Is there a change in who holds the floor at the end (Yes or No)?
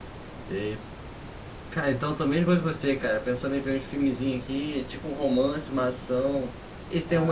Yes